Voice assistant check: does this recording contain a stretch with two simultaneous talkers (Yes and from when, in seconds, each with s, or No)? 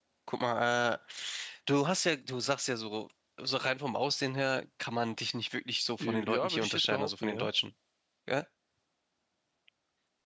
Yes, from 6.0 s